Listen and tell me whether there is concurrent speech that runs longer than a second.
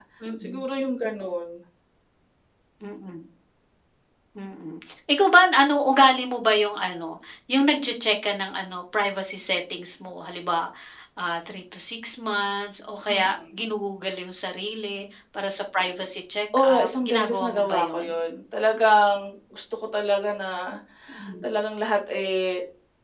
Yes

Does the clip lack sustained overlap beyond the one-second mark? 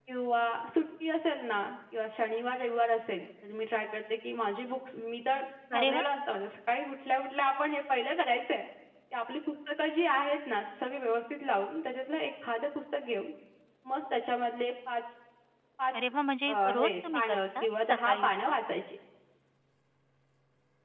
No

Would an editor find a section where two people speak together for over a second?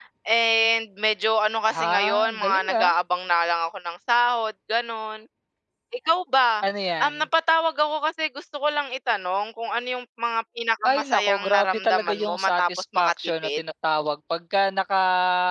Yes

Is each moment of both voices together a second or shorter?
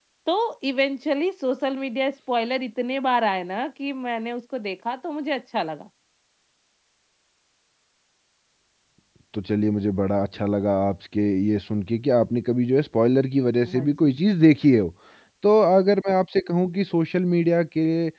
Yes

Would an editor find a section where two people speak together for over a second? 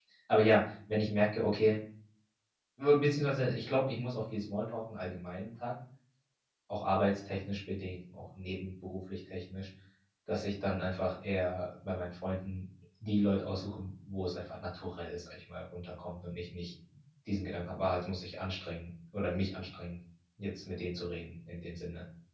No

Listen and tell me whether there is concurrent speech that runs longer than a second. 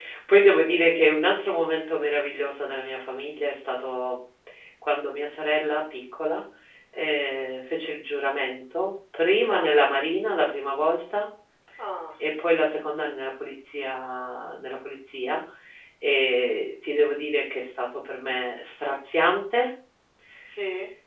No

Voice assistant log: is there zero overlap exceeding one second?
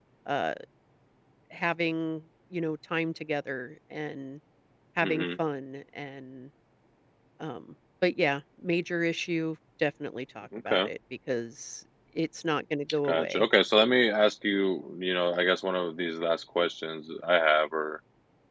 Yes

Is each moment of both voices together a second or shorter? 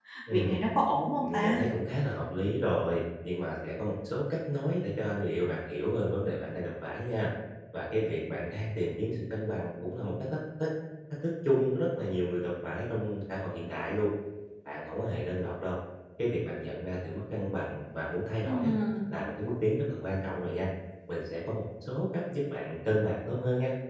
Yes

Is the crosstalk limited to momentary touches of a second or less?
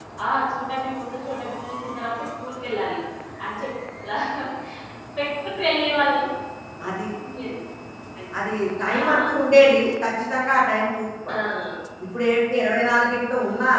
Yes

